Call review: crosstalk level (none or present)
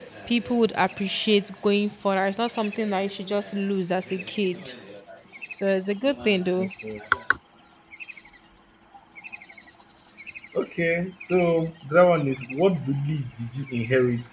none